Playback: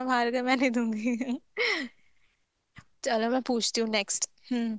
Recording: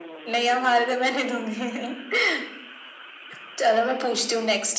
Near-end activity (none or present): none